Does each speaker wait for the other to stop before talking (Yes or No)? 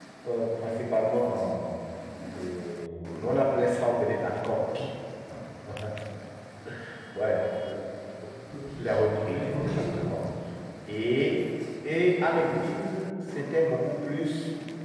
No